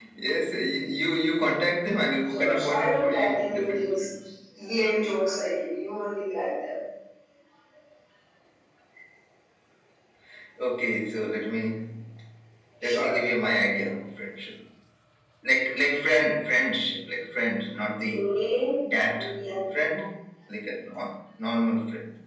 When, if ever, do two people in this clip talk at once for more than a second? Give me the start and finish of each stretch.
2.3-4.1

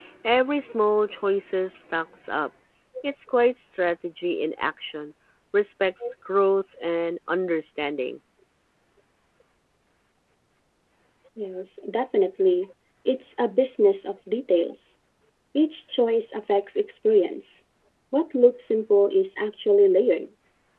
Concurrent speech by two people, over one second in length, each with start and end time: none

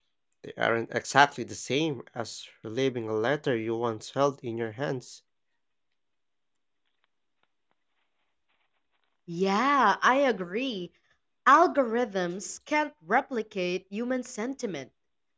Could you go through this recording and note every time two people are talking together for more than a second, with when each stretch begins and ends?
none

